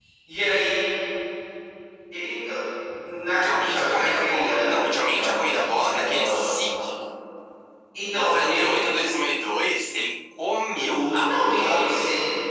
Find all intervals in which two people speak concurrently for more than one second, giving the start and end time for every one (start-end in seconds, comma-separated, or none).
3.3-6.3, 10.8-12.0